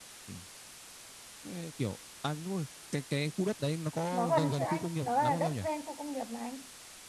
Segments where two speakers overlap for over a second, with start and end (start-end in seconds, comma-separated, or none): 4.1-5.6